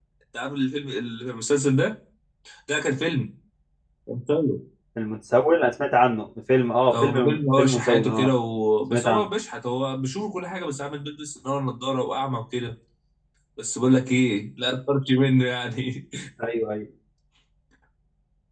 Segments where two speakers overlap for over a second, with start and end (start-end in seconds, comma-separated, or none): 6.9-8.3